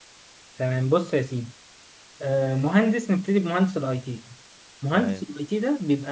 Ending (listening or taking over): listening